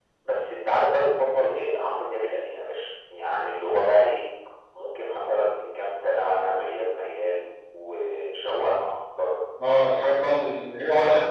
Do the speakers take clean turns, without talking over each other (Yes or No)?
Yes